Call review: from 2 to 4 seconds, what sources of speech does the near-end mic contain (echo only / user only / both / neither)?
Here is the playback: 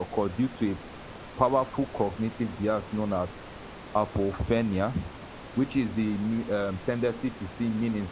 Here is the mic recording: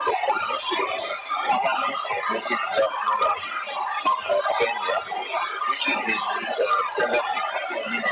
echo only